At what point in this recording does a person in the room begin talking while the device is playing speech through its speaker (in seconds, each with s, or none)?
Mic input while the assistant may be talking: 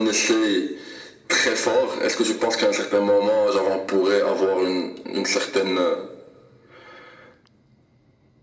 none